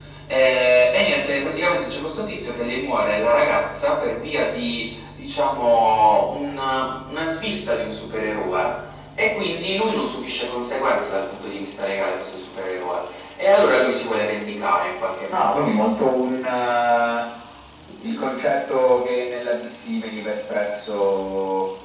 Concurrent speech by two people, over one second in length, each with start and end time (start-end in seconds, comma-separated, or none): none